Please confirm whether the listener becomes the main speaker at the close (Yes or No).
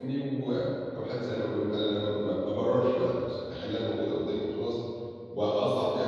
No